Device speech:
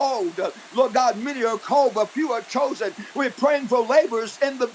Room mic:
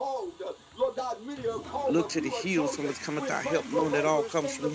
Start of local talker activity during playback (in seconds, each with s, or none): 1.8 s